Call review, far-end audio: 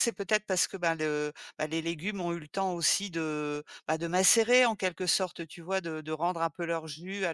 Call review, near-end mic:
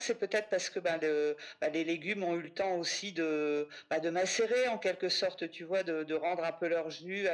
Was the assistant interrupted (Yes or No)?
No